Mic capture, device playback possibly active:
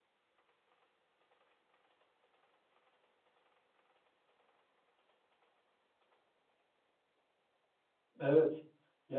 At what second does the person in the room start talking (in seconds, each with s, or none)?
8.2 s